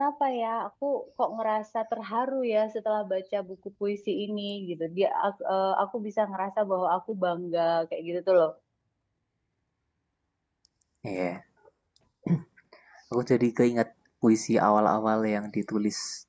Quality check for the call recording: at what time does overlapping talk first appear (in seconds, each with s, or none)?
none